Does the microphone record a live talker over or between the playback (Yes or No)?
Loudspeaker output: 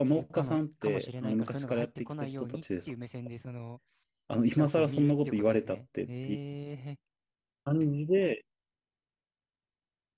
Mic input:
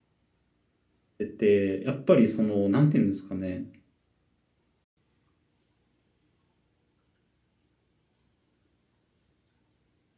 Yes